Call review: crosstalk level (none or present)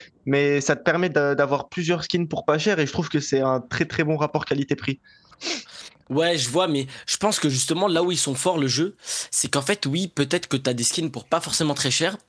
none